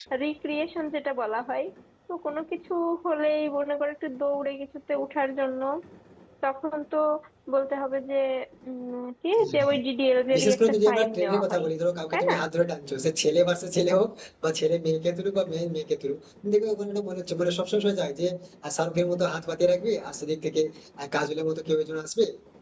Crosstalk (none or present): present